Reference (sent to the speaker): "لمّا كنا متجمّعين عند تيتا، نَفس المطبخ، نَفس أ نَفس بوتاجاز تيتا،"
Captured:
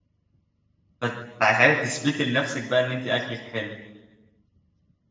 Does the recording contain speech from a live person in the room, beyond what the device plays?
Yes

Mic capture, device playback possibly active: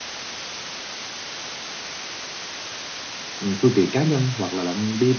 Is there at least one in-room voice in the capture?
Yes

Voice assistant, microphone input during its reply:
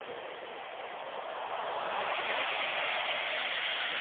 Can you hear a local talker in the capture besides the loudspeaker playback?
No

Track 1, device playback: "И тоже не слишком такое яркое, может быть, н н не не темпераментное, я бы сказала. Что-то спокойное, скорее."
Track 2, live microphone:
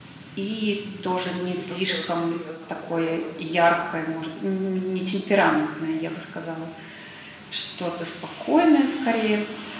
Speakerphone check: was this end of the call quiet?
No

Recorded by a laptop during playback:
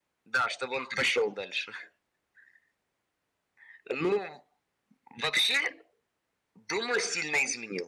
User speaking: No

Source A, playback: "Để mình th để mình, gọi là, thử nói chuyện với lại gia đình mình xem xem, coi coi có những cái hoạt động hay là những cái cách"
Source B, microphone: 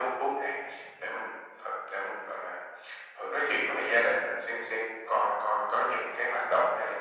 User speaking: No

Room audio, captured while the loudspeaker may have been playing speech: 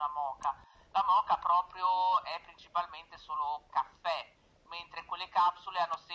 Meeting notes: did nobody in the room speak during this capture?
Yes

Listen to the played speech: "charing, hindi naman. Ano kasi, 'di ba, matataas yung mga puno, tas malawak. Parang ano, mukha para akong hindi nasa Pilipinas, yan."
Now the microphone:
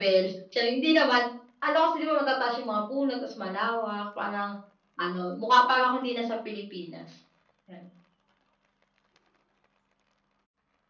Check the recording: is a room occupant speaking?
No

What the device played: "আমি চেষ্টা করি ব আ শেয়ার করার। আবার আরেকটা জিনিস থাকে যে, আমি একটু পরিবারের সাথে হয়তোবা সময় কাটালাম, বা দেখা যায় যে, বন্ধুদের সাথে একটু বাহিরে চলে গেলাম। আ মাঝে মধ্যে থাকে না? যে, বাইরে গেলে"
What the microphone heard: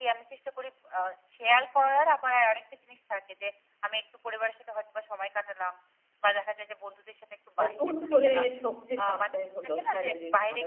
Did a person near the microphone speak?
Yes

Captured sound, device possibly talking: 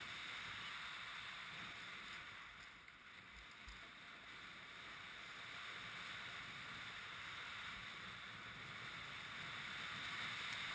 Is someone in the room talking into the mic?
No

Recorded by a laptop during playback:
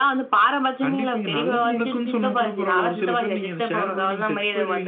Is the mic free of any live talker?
No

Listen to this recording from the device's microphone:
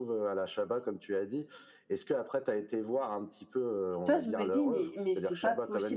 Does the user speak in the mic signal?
Yes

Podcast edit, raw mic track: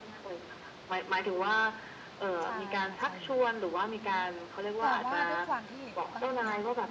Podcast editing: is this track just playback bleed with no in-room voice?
No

